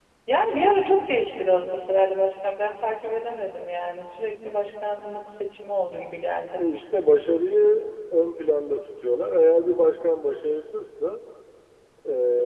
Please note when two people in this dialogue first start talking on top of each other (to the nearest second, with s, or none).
none